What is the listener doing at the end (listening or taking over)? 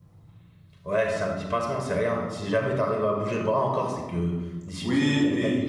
taking over